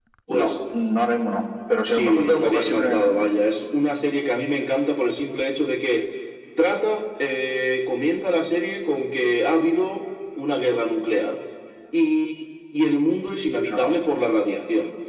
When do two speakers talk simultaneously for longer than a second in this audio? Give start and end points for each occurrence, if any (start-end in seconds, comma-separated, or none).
1.9-3.1